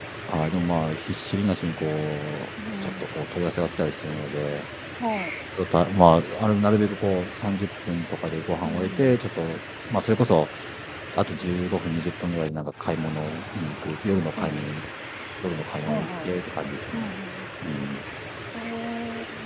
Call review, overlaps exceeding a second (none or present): none